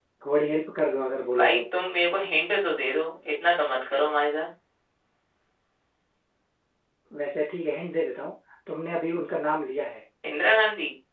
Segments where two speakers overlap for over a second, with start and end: none

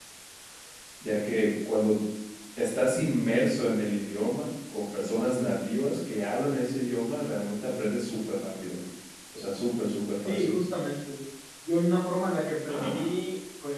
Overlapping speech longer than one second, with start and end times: none

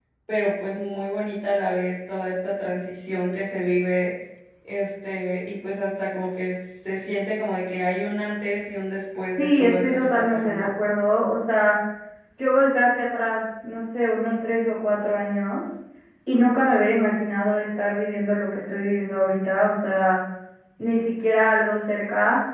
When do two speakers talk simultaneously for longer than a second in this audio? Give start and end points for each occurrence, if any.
9.4-10.7

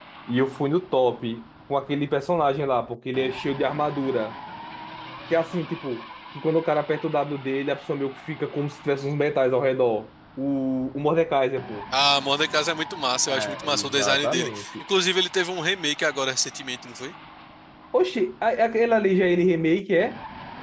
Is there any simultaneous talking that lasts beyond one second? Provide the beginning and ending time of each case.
13.3-14.6

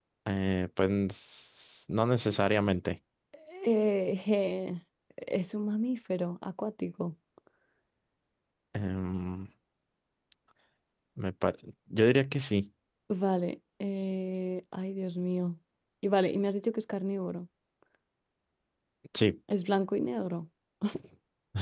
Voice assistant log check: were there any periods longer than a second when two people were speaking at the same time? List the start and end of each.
none

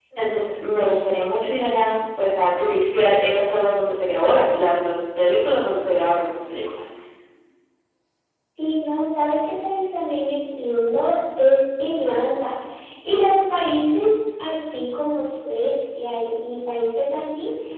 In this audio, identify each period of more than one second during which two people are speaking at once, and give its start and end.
none

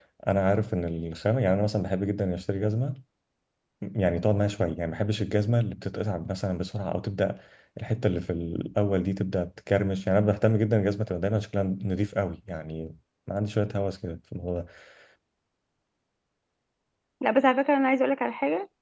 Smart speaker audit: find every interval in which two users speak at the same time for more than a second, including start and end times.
none

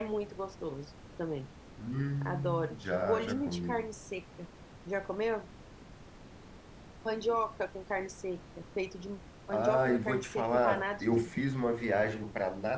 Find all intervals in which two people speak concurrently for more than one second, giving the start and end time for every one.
2.2-3.8, 9.5-11.3

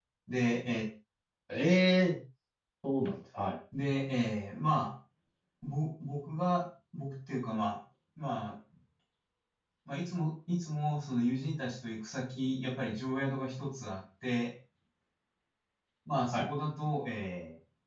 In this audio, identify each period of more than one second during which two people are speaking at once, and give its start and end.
none

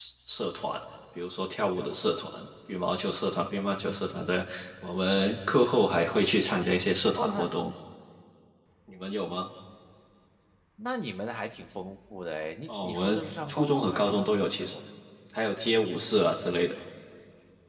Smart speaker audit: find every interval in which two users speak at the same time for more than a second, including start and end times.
12.7-14.8

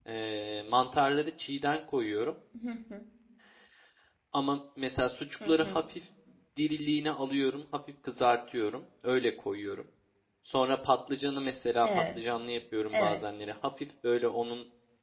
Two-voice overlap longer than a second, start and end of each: none

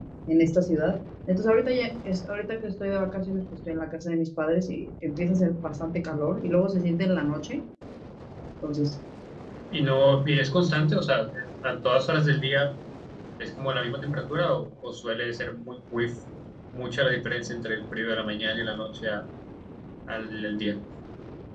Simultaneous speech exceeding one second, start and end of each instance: none

